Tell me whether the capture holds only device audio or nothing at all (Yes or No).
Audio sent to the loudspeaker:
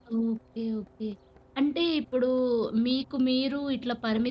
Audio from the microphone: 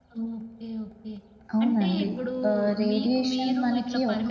No